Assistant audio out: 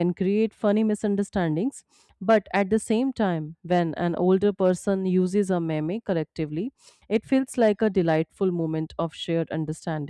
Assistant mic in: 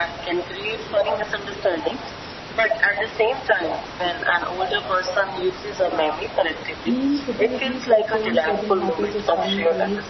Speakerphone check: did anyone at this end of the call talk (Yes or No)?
Yes